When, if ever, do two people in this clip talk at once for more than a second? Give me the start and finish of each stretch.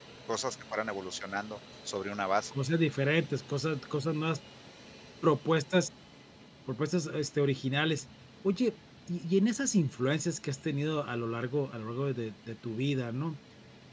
none

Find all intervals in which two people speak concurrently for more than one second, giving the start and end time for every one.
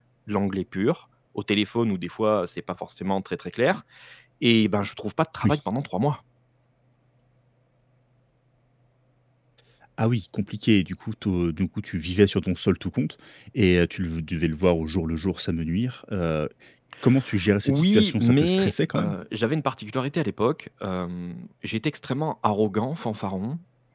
17.6-19.2

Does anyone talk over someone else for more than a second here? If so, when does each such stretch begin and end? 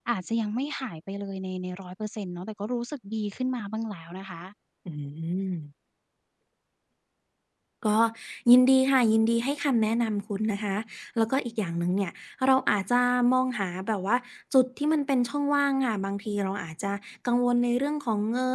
none

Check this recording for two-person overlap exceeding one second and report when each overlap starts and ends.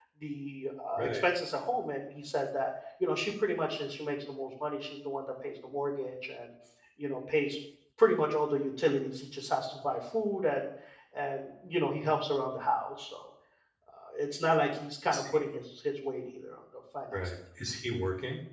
none

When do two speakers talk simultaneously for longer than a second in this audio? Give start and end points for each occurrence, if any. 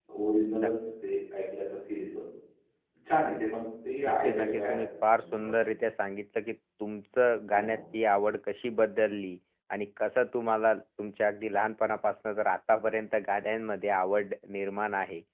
4.1-5.5

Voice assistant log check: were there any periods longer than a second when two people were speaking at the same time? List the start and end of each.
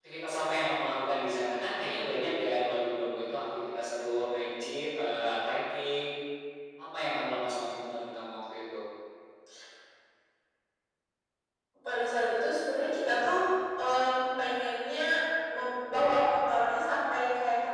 none

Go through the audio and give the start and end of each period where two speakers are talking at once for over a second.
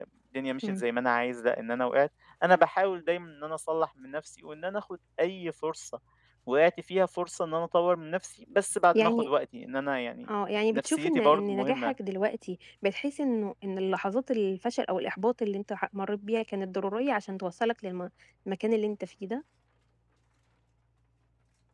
10.7-11.9

